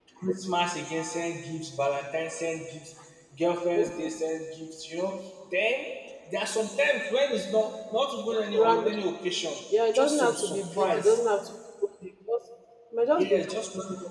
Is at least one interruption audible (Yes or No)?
Yes